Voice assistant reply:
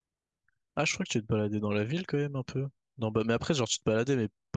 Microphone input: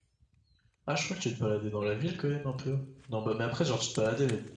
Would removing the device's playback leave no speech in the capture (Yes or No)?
Yes